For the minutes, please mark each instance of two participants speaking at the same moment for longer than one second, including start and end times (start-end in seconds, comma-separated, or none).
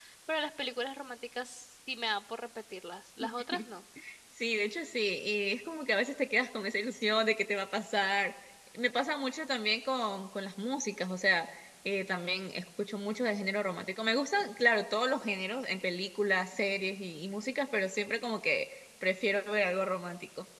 none